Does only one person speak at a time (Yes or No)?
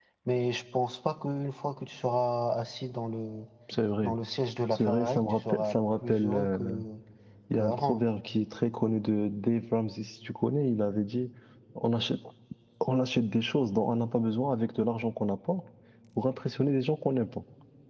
No